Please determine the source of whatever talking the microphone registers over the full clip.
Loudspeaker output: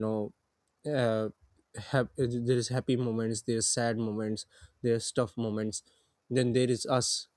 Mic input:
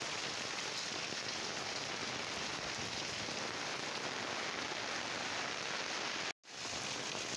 neither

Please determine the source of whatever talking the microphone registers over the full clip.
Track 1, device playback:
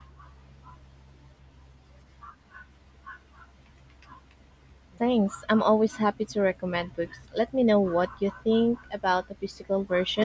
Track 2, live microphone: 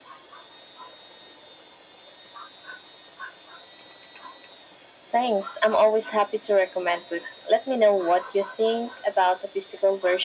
echo only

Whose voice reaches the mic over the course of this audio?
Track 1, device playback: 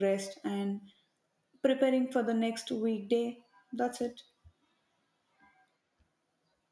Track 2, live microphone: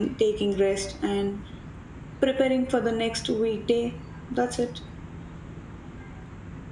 echo only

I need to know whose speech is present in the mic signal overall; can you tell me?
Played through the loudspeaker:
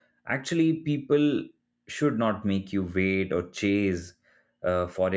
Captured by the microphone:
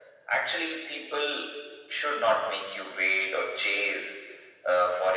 echo only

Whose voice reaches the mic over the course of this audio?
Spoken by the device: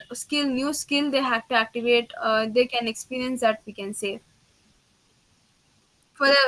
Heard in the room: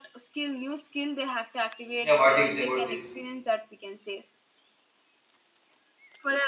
both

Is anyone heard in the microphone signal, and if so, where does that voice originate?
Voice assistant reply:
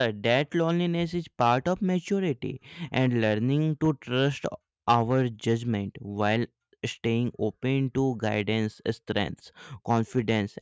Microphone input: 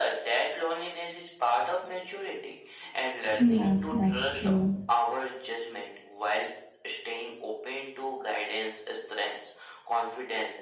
both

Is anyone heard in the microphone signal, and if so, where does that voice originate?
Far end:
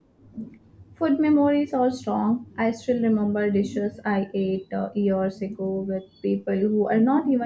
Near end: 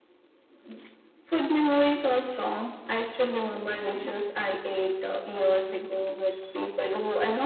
echo only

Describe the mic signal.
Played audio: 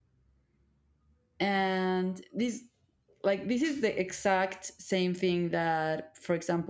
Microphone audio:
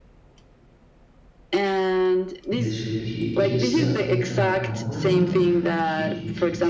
both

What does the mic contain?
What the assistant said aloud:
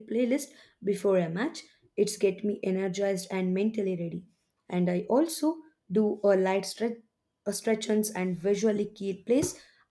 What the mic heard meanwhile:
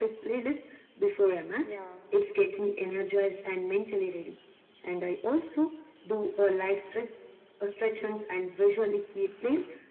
both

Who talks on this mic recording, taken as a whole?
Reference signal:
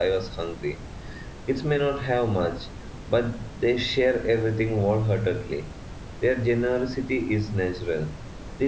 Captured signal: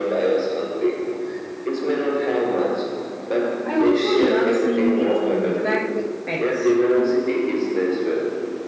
both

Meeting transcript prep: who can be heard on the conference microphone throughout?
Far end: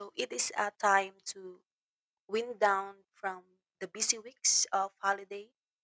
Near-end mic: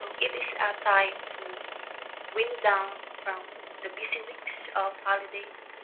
echo only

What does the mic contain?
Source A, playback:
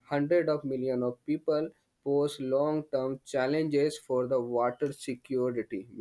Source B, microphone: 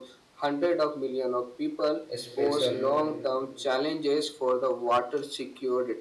both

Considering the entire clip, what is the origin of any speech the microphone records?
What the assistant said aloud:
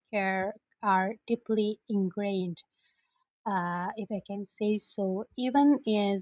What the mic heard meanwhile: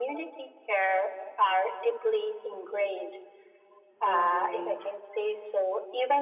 both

